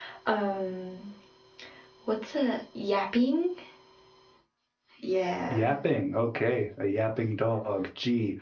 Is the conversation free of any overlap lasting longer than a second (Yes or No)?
Yes